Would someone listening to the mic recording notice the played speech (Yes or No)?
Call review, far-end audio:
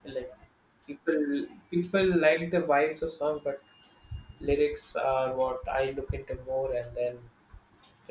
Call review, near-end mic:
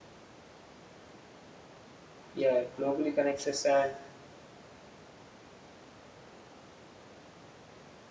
No